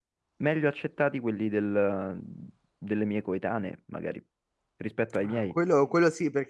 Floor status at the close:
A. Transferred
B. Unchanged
A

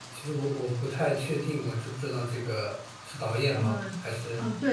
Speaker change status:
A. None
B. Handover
B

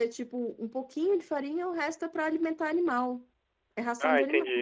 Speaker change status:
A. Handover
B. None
A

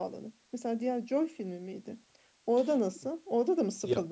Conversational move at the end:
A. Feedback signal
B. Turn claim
B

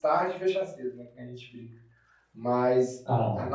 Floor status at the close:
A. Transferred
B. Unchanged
B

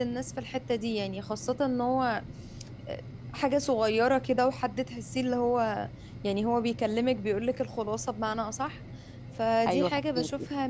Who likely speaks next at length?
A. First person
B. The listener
A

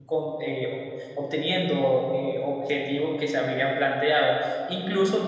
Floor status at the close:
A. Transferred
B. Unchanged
B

